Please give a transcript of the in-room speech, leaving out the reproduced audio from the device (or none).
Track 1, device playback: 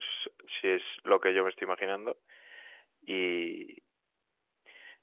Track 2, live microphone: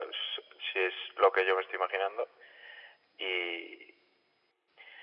none